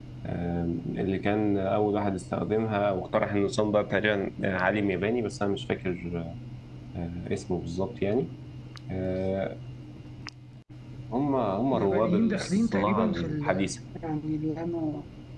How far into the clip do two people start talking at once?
12 s

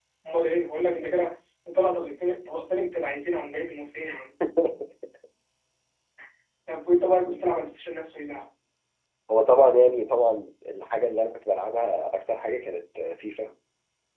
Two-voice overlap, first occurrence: none

